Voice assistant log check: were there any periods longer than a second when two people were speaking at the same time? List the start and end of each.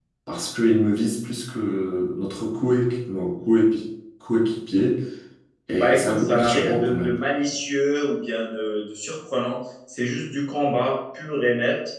5.7-7.2

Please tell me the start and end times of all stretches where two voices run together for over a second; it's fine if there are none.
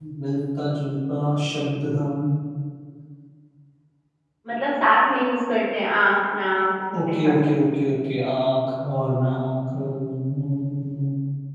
none

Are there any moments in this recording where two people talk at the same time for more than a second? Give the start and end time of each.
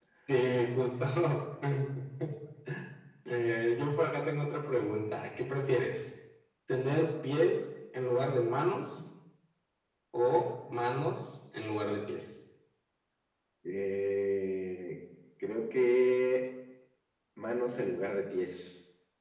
none

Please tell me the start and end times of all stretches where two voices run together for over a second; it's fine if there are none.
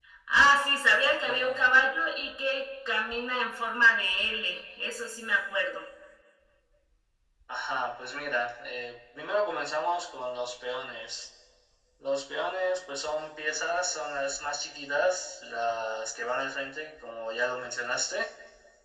none

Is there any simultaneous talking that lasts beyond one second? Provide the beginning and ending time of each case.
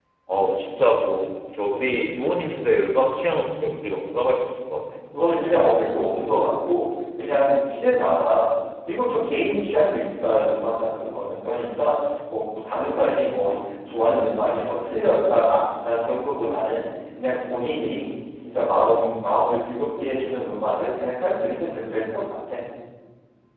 none

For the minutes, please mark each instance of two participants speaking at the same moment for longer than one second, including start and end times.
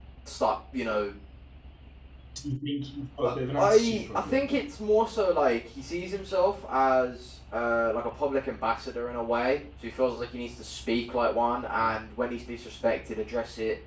3.2-4.5

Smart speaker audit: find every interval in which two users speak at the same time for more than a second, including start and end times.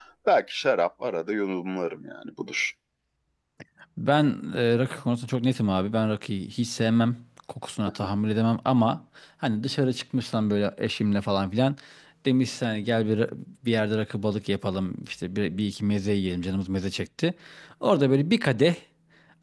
none

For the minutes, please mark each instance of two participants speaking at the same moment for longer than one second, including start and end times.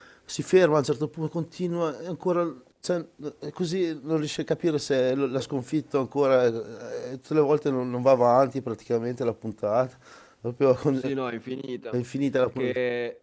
none

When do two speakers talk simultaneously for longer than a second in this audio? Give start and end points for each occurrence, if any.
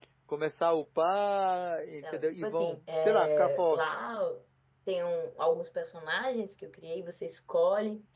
2.0-3.8

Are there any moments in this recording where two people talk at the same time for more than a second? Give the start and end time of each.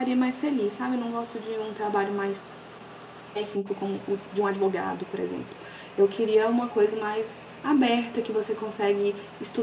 none

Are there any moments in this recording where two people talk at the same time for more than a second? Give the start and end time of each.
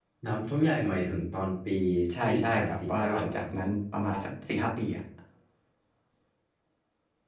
2.2-3.5

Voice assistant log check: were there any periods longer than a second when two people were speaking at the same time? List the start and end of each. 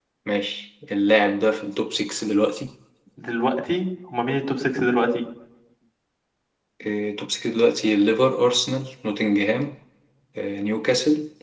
none

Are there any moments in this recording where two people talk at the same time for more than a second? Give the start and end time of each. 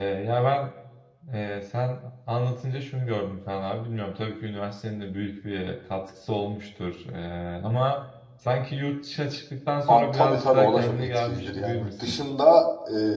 9.9-12.2

